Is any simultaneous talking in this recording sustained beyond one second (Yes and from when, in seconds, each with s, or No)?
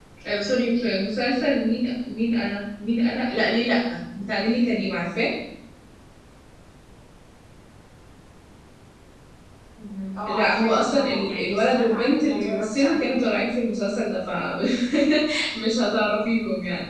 Yes, from 10.3 s